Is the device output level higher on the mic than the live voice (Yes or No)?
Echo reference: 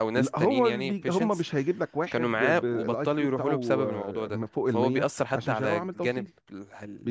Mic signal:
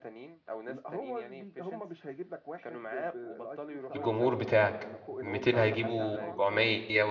No